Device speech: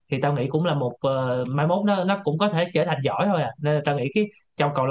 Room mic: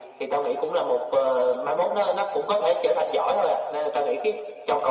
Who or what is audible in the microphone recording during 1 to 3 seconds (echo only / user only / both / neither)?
echo only